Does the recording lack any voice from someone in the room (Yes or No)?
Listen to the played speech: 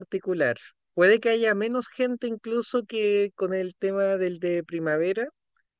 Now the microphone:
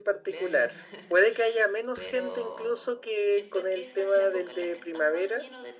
No